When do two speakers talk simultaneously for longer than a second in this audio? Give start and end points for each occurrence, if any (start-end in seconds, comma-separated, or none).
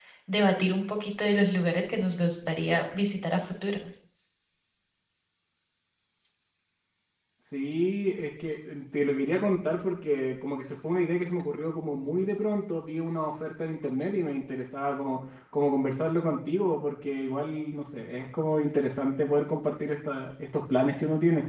none